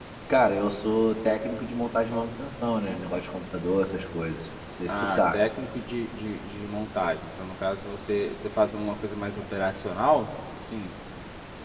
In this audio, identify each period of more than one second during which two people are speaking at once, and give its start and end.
none

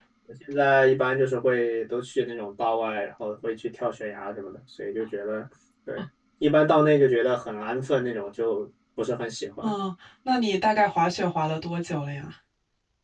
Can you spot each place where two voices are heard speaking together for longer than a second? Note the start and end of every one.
none

